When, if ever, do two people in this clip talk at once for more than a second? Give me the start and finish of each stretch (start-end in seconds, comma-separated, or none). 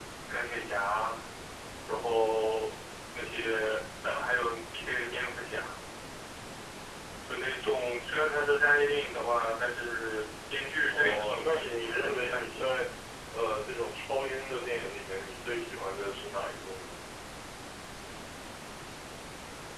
10.9-12.7